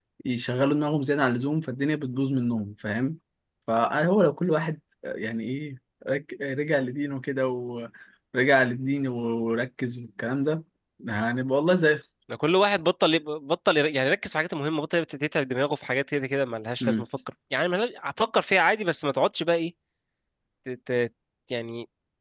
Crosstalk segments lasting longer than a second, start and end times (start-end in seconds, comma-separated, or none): none